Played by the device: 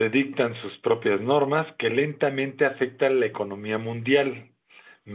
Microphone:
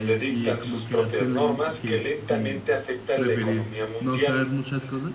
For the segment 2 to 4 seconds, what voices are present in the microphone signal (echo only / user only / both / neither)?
both